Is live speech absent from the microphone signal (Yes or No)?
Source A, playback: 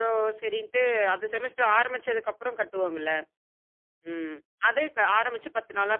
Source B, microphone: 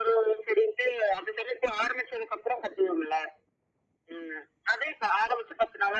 Yes